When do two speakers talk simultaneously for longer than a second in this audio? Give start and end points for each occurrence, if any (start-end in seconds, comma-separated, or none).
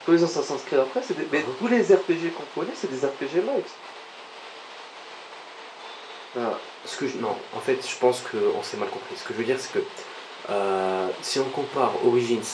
none